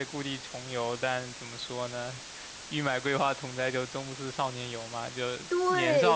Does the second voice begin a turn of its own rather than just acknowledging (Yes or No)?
Yes